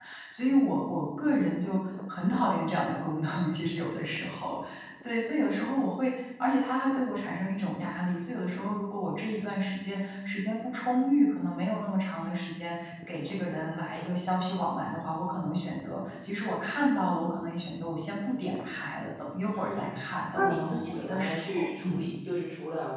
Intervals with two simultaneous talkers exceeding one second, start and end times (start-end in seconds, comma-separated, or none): 20.3-22.0